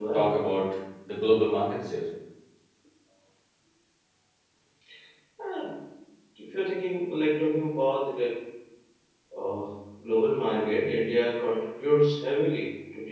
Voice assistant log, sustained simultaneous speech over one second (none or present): none